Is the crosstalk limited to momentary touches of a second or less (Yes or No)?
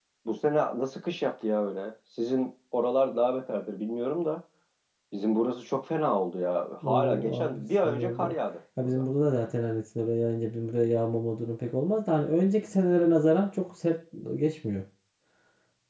No